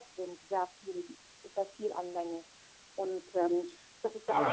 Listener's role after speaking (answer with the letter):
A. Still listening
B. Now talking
B